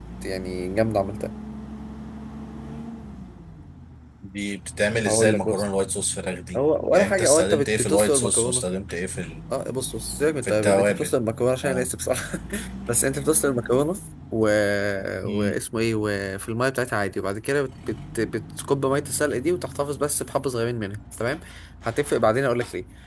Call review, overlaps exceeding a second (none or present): present